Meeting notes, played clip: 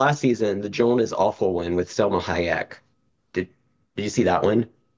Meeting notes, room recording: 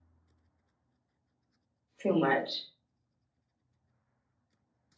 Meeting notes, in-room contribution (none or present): present